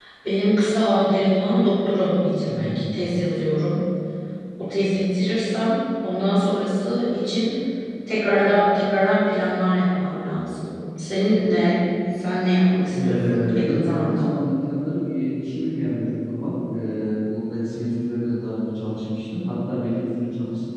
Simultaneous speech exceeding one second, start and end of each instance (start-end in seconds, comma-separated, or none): 12.9-14.3